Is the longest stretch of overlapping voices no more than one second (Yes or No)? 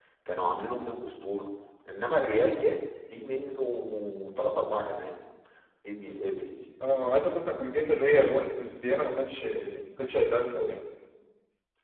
Yes